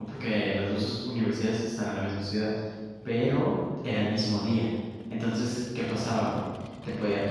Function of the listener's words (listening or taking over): listening